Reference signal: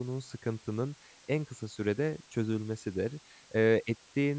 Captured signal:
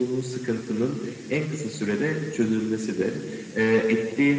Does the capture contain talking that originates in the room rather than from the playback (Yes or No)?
No